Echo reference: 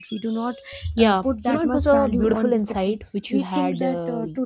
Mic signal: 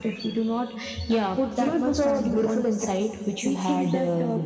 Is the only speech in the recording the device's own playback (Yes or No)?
Yes